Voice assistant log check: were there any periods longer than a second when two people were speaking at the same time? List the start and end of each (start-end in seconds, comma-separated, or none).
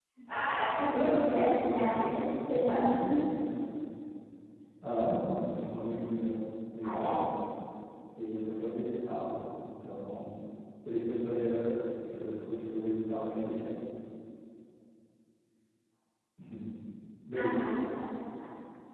0.9-3.2